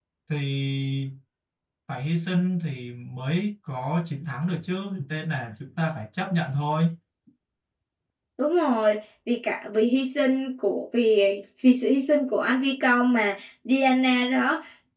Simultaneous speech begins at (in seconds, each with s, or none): none